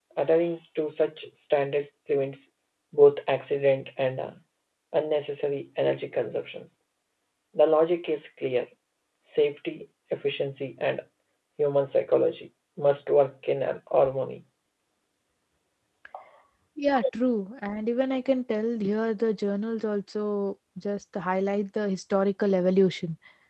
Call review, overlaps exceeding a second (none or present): none